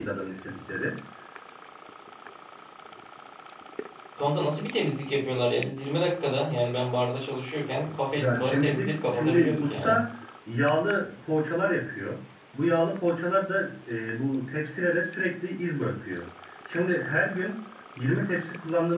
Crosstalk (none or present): present